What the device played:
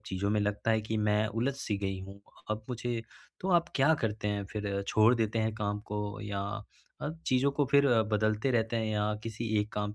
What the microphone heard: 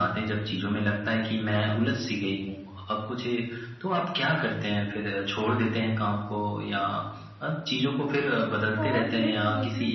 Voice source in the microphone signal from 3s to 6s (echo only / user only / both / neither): echo only